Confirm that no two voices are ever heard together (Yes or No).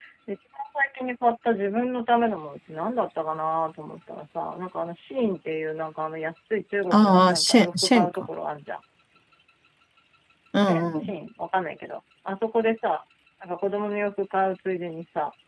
No